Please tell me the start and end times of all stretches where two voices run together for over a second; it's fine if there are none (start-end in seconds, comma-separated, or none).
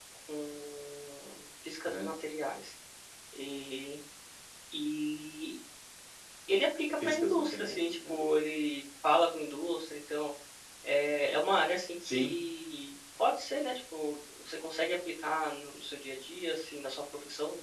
7.0-8.2